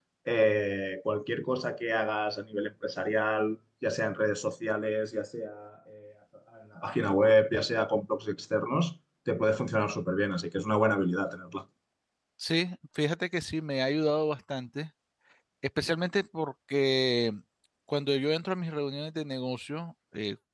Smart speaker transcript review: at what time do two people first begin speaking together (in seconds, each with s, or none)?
none